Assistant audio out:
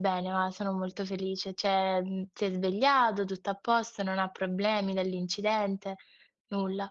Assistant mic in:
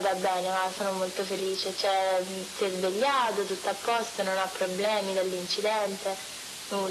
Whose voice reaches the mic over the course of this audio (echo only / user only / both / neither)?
echo only